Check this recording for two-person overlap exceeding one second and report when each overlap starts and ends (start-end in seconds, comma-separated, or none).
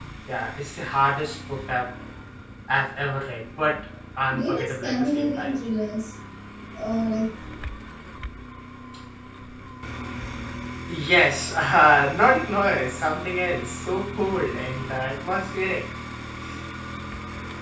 4.3-5.6